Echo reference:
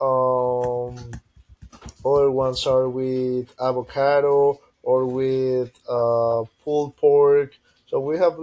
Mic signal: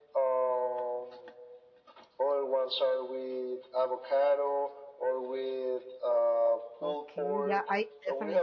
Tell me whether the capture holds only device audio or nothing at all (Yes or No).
No